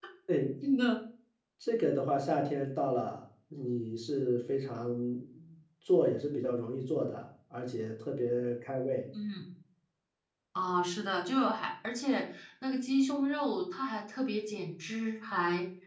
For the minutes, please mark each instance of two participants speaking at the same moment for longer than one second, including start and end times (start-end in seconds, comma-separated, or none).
none